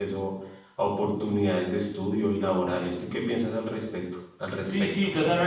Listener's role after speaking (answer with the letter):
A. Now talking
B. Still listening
A